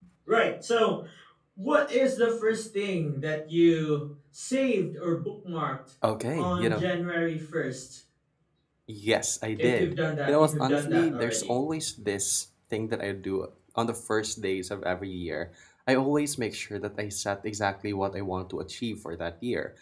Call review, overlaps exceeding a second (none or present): present